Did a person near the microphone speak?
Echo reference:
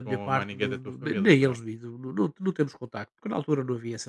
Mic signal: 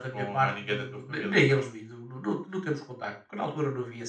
No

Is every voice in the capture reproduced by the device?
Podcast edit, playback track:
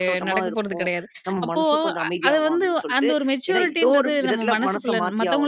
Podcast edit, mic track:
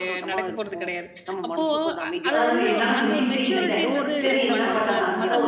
No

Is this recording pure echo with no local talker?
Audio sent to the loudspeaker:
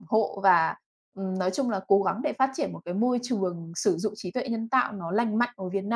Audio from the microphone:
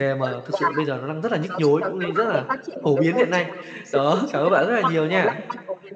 No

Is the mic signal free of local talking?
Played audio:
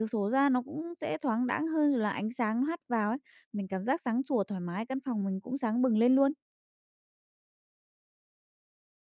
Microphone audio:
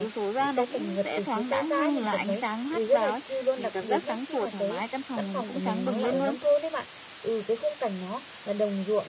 No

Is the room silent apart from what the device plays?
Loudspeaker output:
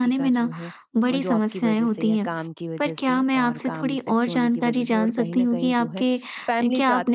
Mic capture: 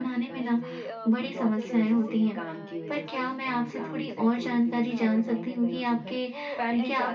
No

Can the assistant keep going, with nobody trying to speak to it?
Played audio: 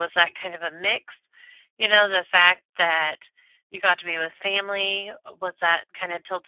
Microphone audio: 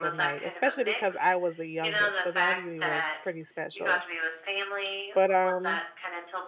No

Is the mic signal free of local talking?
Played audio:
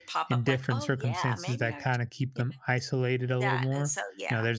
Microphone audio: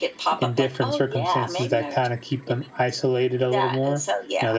Yes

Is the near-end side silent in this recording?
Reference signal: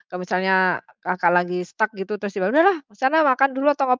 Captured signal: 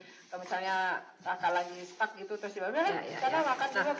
No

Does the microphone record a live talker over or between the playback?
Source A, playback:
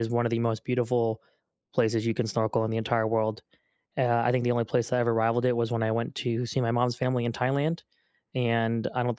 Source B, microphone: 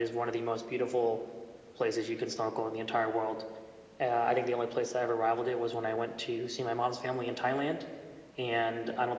No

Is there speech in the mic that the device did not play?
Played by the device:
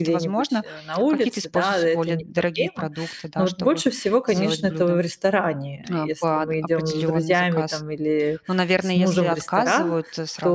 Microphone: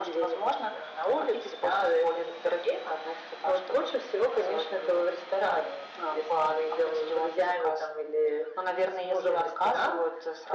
No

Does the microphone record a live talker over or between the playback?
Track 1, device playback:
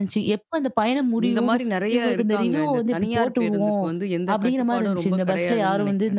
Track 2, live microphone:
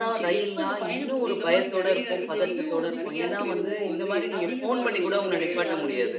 Yes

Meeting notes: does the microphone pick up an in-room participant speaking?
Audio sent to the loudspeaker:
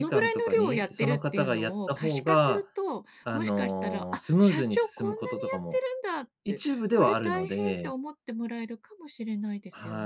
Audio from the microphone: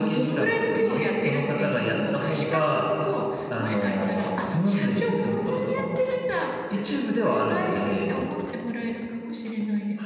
No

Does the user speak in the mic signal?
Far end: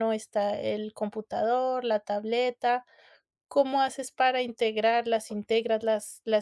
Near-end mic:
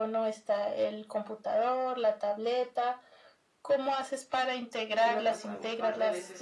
Yes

